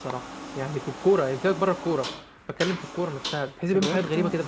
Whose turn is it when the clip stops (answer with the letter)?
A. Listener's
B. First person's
A